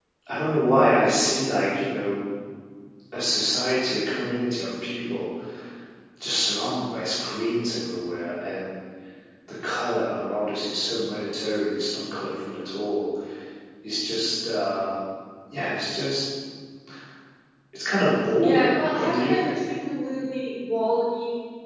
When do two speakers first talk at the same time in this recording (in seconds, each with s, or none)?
18.4 s